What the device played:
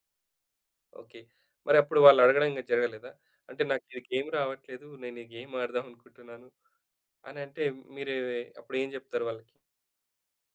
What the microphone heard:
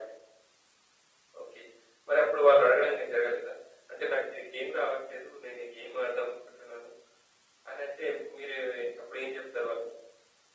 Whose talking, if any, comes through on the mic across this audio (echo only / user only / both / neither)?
echo only